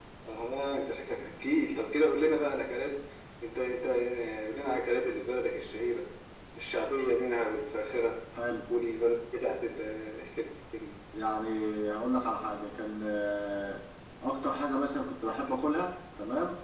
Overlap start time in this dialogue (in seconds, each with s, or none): none